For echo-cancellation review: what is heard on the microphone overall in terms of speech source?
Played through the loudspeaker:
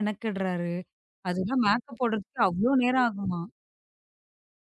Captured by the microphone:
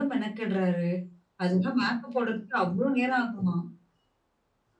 echo only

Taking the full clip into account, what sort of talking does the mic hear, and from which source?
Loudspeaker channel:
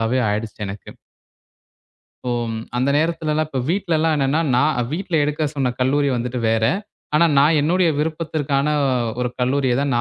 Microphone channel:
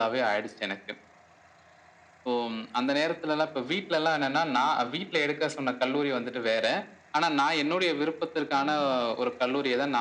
both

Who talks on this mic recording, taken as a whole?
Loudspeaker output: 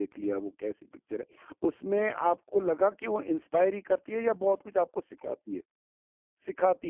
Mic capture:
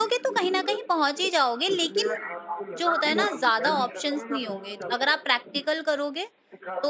both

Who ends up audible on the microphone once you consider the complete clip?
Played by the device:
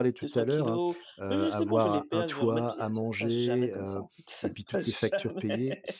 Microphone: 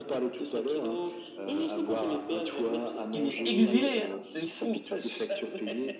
both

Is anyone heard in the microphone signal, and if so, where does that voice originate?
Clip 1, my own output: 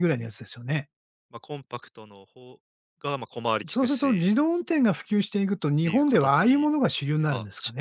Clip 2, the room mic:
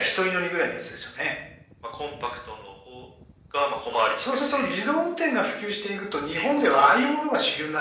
echo only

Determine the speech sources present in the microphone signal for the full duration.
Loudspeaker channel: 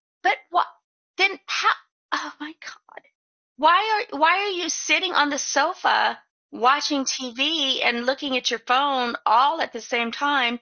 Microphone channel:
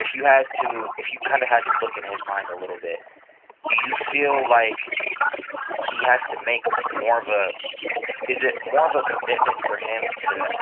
both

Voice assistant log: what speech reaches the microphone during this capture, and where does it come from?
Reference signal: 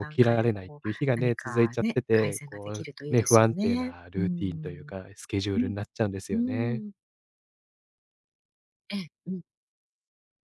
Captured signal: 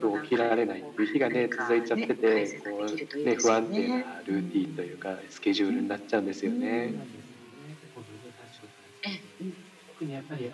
both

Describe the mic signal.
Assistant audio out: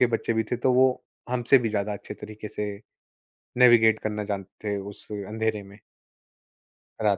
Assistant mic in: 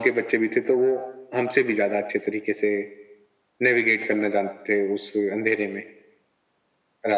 echo only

